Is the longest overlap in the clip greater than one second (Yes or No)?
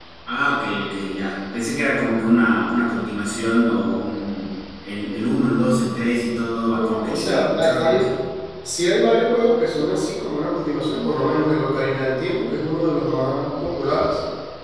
Yes